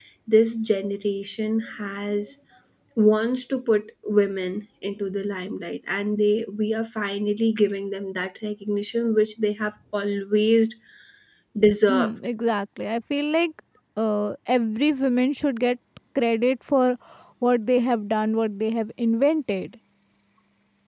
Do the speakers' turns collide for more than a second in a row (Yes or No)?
No